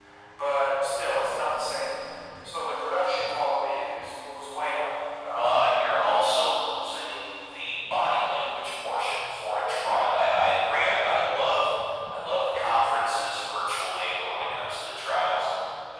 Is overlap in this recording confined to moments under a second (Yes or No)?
Yes